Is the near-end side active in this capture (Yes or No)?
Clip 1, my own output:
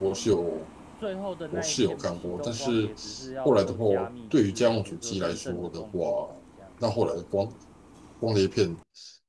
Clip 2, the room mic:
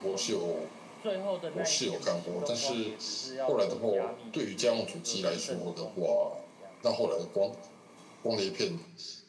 No